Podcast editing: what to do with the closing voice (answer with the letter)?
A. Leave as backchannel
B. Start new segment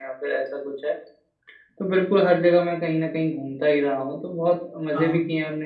A